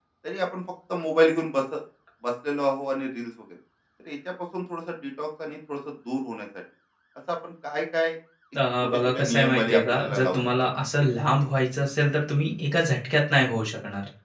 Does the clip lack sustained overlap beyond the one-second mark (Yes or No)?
No